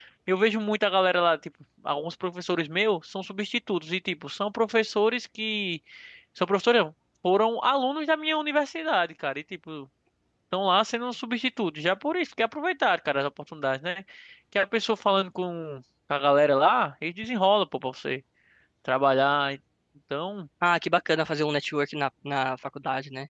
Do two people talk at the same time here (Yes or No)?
No